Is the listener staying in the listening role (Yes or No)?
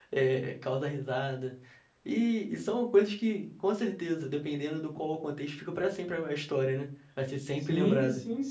No